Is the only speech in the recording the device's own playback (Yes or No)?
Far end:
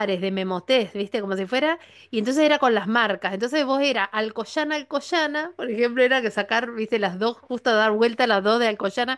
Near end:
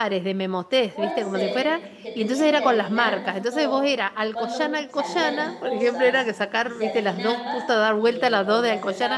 No